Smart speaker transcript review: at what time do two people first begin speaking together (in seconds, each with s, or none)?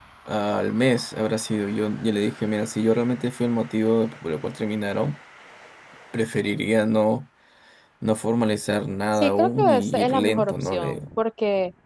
9.1 s